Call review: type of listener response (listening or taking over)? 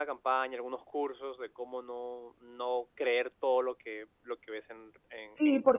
taking over